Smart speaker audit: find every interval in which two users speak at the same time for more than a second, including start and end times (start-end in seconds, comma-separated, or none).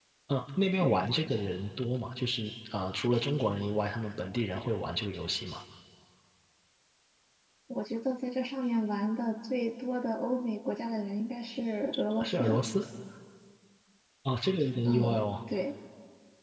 none